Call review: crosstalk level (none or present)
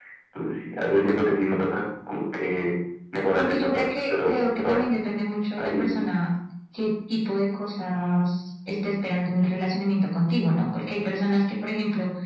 present